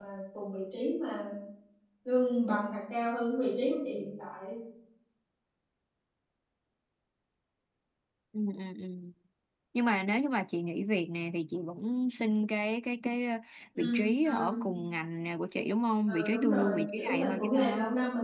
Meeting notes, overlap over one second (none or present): present